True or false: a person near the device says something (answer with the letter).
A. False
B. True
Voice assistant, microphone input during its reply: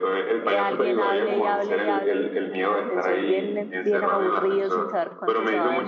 B